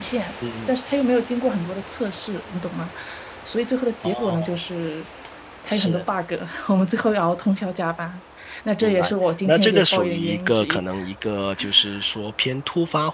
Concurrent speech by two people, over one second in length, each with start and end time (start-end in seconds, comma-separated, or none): 8.8-10.8